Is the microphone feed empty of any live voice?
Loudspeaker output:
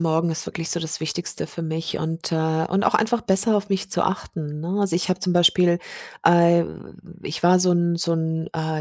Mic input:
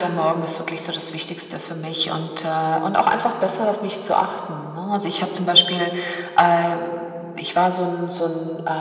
Yes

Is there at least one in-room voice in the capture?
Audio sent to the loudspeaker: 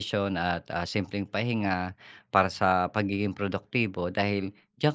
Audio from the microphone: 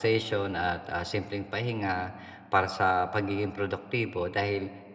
No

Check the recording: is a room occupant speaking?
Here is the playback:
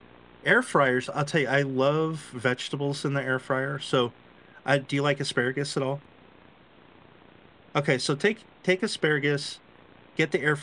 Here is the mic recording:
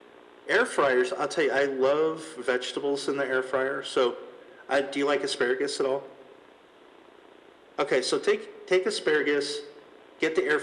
No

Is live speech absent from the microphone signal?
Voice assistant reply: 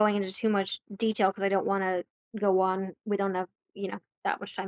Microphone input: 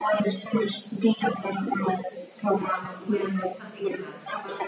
No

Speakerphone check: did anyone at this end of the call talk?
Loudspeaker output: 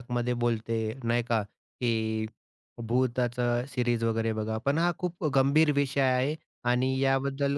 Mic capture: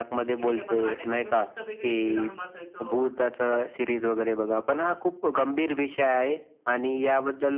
Yes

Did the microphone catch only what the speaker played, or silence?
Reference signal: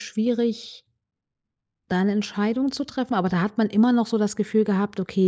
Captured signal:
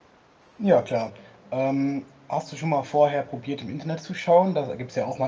No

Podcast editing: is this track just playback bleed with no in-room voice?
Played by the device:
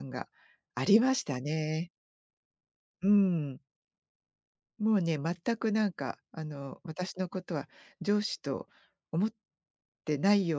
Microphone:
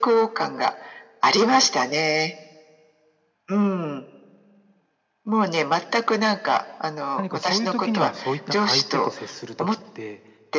No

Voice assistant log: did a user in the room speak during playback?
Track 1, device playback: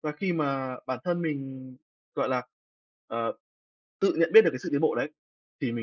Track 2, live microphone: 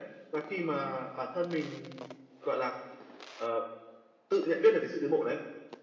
No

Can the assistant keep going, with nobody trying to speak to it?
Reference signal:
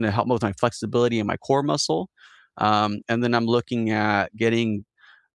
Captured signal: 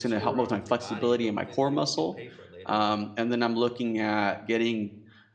No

